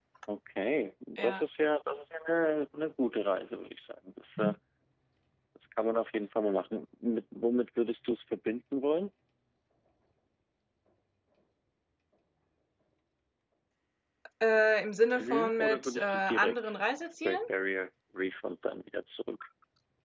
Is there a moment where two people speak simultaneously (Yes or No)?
Yes